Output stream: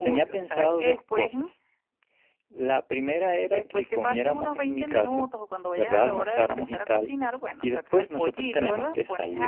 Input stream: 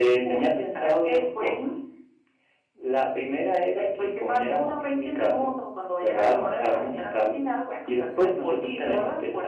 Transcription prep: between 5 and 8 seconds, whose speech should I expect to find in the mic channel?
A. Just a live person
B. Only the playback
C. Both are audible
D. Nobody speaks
B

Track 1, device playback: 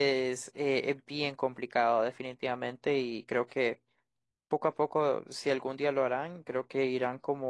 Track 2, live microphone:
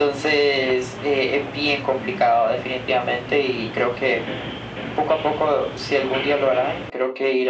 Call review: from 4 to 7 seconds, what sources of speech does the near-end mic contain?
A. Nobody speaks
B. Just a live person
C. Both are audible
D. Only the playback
D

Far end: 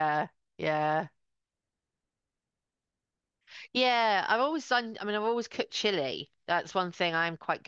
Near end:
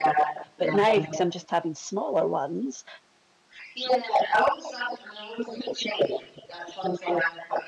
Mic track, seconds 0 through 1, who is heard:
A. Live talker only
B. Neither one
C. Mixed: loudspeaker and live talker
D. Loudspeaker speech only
C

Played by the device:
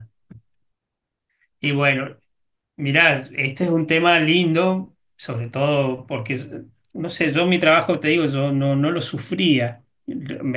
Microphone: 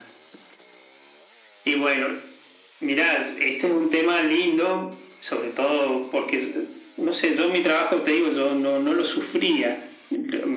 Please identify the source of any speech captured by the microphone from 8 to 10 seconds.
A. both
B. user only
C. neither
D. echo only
D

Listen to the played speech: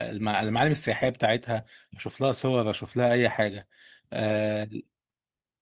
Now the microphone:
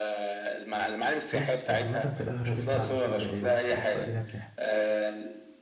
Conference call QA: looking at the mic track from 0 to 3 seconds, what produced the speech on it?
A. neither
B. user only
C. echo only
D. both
D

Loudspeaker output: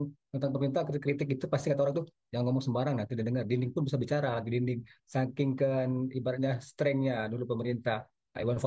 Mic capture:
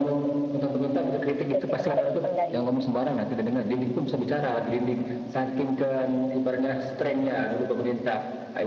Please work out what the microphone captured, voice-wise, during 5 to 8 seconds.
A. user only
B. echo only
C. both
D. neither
B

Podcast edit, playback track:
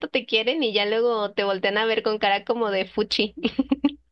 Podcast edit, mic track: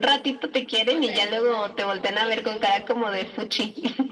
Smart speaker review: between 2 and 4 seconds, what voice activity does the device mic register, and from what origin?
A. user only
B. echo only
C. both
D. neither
C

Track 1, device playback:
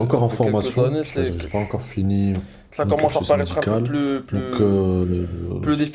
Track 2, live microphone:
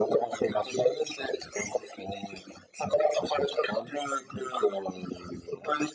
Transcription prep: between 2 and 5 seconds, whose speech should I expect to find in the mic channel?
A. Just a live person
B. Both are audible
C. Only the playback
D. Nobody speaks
C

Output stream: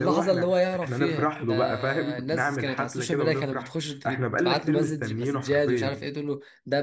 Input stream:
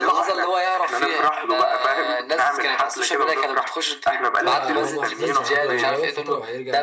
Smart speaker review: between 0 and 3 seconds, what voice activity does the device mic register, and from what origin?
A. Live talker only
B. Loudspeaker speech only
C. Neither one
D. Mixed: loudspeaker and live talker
B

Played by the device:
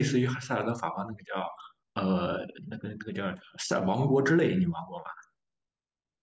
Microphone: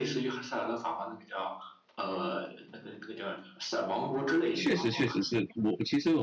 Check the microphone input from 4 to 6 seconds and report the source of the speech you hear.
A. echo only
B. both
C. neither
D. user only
B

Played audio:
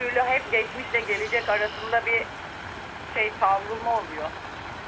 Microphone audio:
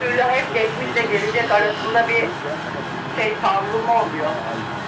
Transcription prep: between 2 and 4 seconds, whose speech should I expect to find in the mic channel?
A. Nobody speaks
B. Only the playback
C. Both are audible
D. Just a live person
C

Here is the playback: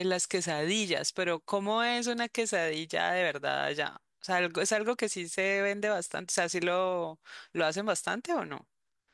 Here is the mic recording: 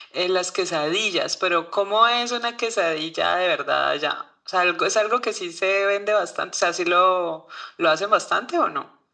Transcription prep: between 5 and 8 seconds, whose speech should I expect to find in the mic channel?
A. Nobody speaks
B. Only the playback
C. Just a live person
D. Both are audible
B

